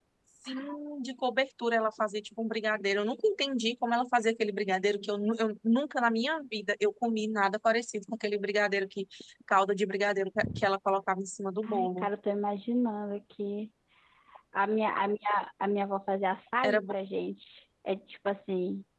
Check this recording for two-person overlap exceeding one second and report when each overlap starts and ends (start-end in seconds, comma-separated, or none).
none